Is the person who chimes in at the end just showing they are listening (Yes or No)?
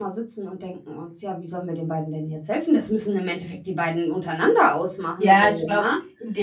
No